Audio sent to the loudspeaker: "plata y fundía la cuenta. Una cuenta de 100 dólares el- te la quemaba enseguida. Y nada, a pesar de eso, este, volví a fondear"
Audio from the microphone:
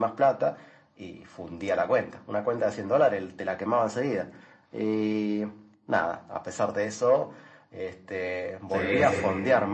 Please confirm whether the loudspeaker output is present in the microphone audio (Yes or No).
Yes